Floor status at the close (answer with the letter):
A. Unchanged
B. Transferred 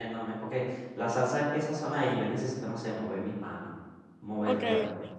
B